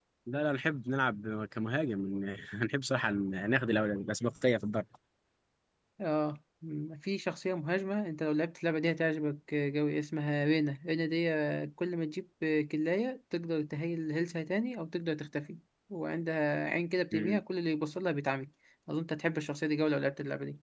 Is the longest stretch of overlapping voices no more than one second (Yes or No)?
Yes